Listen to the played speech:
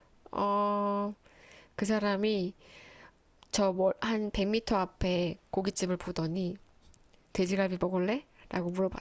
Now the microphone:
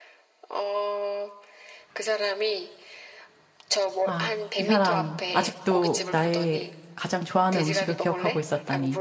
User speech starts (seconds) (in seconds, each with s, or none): 4.0 s